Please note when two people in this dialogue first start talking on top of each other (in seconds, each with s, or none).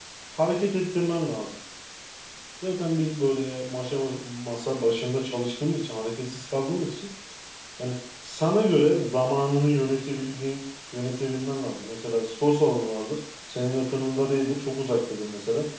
none